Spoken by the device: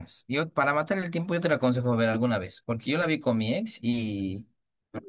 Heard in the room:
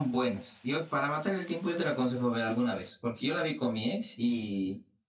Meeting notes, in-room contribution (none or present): none